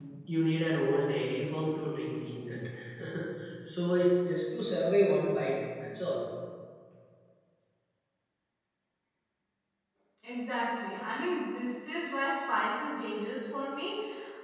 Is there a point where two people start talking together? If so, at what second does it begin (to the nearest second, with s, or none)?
none